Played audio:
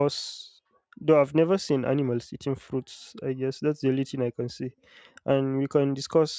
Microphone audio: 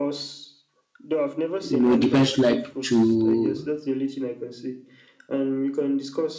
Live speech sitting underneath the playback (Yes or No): No